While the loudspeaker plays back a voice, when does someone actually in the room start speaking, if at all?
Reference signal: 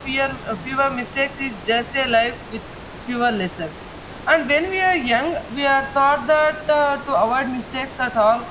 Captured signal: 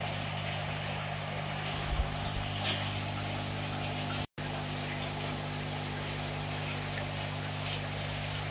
none

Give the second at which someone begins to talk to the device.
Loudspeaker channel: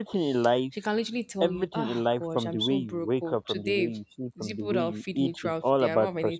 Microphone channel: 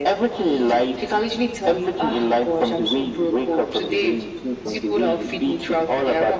none

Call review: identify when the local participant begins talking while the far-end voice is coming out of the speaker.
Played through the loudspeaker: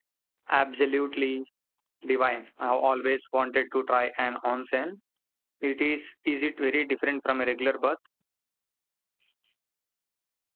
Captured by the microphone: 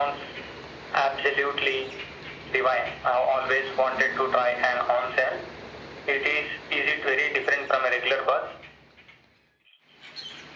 none

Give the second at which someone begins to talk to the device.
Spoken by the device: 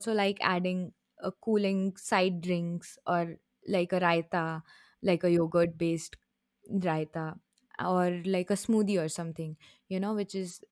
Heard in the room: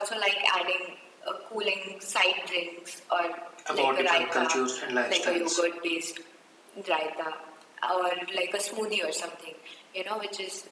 3.6 s

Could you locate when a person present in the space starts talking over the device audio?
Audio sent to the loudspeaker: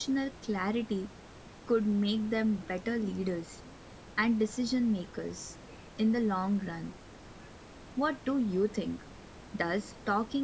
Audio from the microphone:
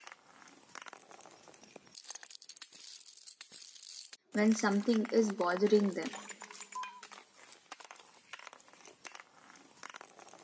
4.3 s

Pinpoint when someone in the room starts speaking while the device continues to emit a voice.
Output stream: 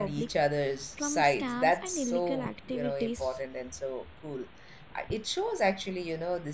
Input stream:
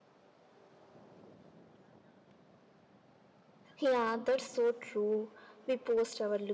3.8 s

